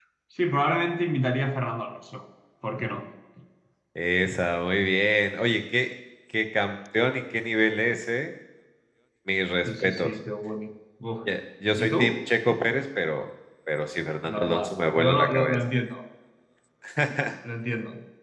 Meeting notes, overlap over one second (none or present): present